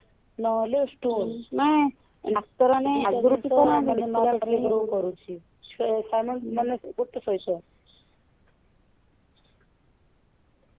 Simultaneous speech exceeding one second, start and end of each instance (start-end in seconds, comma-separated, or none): 2.9-5.0